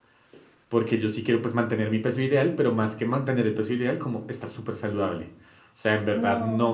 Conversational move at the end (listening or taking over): listening